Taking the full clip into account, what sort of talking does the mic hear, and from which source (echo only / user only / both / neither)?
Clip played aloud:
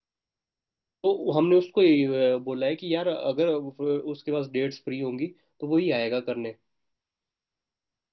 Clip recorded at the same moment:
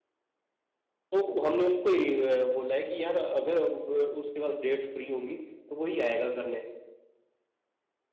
echo only